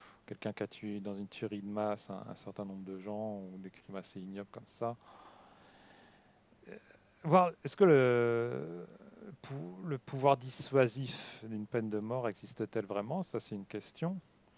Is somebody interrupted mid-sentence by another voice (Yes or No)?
No